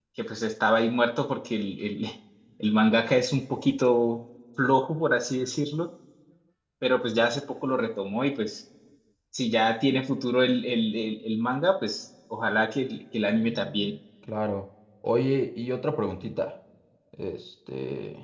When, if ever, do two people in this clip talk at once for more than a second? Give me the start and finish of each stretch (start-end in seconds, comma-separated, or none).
none